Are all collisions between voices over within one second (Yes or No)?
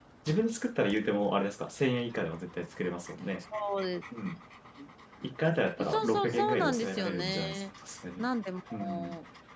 No